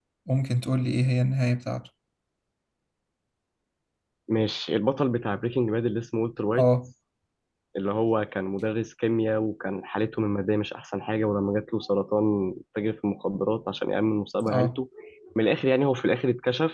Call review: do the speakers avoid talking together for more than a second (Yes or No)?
Yes